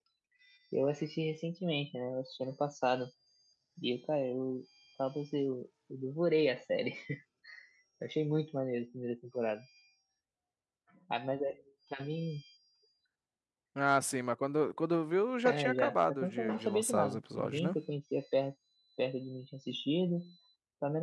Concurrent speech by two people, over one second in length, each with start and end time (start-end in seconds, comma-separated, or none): 15.4-17.8